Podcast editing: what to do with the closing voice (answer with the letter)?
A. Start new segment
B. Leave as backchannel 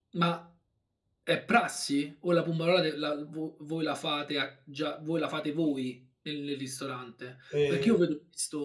B